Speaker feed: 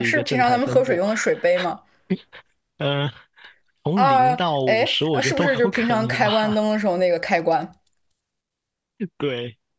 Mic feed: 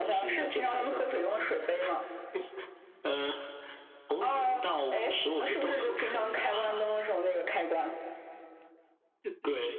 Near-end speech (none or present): none